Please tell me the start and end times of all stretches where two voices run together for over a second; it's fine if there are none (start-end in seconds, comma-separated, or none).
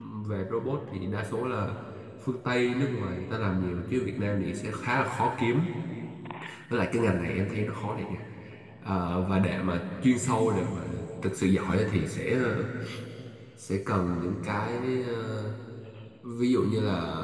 none